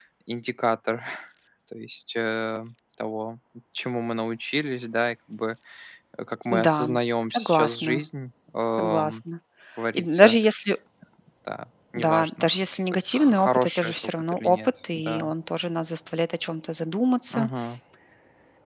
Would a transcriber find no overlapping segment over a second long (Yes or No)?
No